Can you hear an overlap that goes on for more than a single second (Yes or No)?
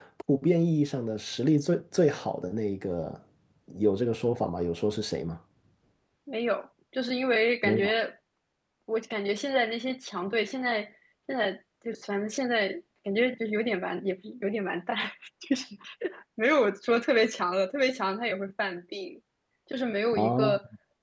No